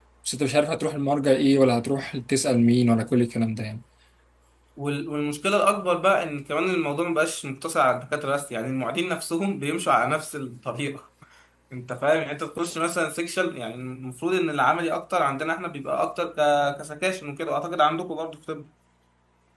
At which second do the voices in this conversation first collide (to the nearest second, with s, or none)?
none